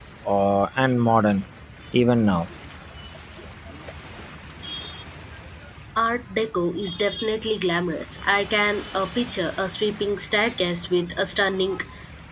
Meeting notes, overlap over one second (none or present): none